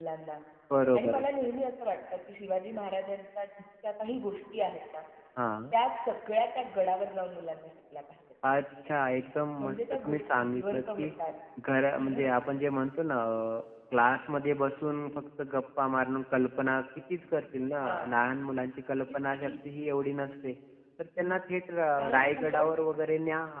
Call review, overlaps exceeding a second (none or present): present